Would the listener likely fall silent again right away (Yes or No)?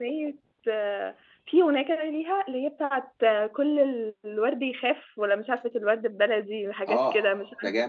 No